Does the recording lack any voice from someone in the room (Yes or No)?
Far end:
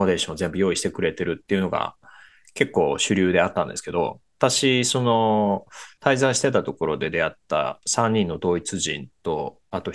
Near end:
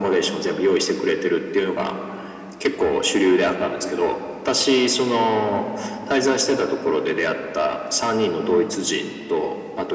Yes